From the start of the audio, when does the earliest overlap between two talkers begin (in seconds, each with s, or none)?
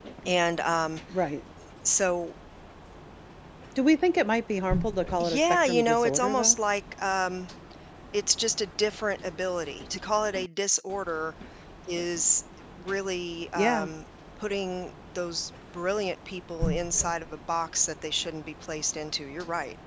5.2 s